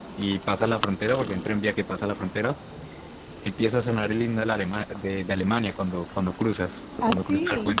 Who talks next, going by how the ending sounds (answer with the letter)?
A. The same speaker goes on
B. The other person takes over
A